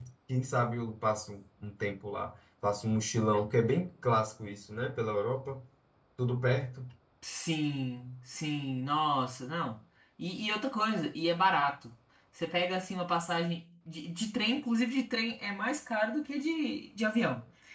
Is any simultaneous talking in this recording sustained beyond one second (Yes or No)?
No